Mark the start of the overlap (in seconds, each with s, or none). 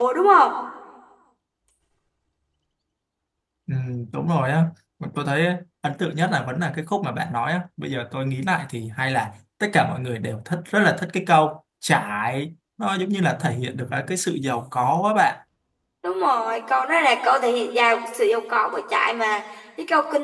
none